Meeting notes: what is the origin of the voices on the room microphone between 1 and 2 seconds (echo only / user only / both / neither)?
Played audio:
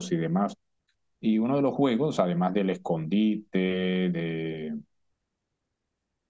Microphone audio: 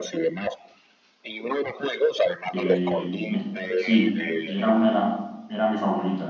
echo only